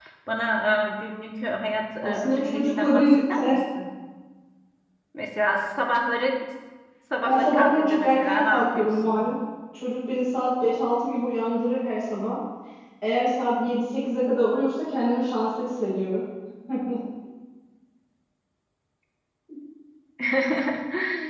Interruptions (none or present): present